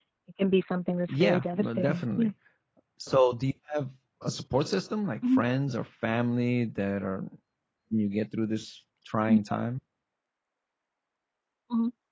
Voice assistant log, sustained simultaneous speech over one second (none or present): present